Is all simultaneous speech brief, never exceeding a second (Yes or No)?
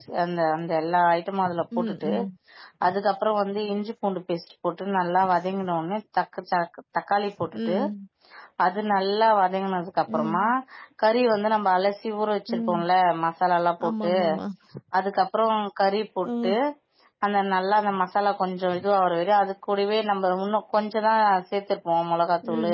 Yes